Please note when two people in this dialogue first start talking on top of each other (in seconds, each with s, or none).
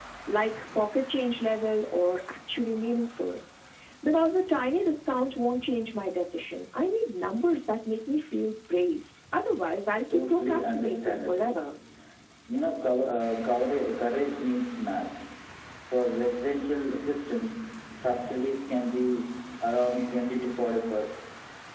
10.1 s